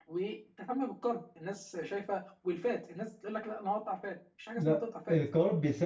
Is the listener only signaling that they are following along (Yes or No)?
No